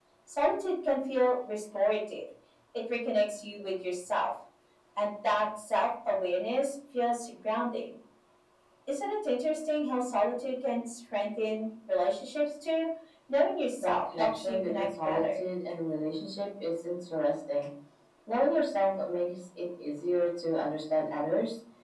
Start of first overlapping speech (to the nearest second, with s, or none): 14 s